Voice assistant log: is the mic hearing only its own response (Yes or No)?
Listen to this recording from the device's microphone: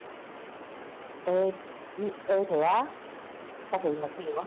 No